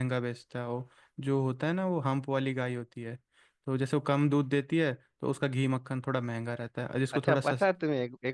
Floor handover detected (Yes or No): Yes